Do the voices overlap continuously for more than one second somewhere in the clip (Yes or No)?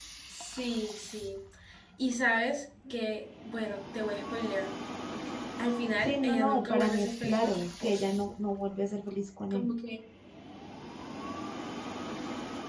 Yes